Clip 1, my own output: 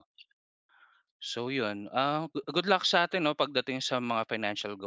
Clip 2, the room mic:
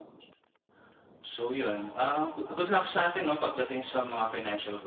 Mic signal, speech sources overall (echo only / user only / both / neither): echo only